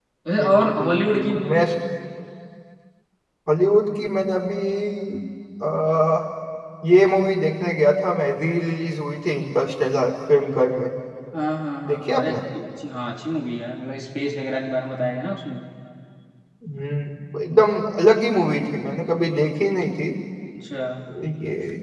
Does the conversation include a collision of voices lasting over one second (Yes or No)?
Yes